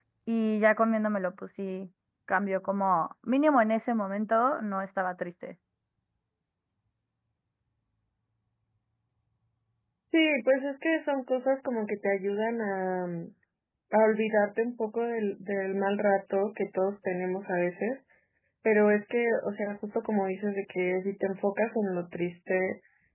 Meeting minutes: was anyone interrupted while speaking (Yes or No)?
No